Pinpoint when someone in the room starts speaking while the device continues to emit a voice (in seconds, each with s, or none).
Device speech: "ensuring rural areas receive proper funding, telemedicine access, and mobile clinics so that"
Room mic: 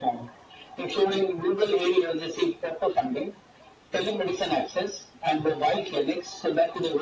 none